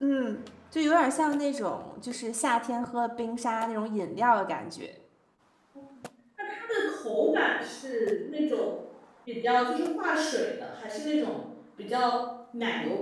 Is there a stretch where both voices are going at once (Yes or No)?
No